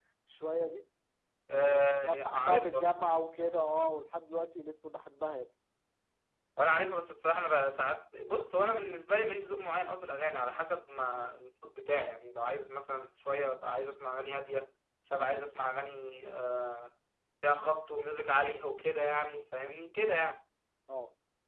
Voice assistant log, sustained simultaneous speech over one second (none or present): present